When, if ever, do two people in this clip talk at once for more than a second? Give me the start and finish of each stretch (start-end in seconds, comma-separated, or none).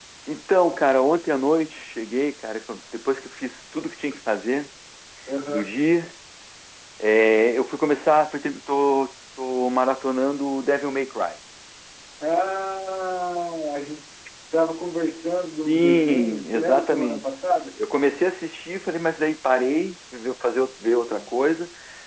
15.6-17.2